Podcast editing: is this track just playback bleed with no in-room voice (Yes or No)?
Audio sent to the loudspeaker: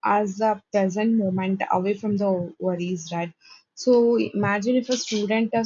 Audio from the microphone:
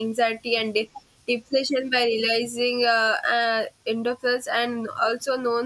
No